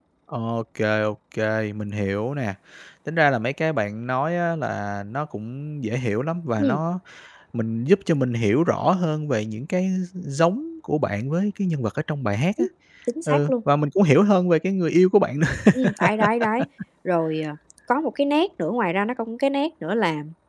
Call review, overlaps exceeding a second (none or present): none